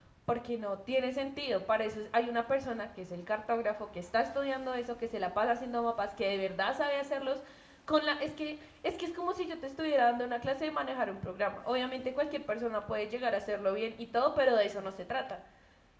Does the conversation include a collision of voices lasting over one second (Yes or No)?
No